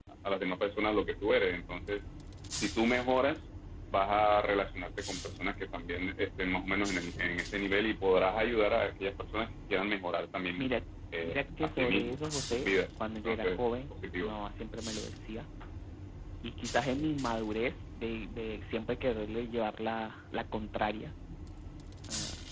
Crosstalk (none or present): present